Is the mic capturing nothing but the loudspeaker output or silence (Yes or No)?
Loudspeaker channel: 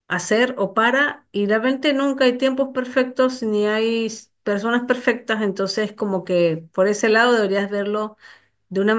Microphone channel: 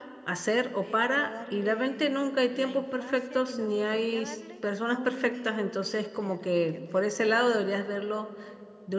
No